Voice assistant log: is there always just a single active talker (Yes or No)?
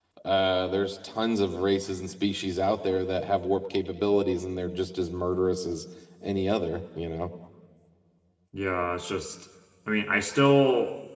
Yes